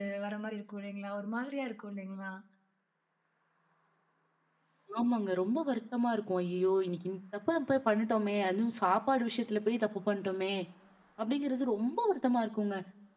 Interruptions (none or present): none